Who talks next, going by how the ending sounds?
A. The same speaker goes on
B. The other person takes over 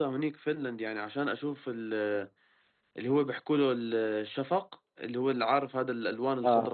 B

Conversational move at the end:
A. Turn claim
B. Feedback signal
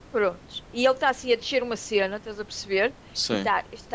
B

